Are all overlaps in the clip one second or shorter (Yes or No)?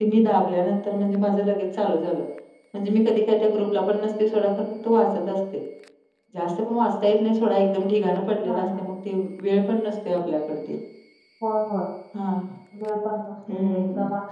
Yes